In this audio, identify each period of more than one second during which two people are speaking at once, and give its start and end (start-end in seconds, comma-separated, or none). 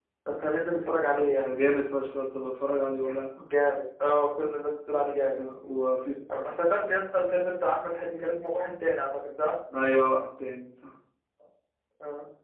none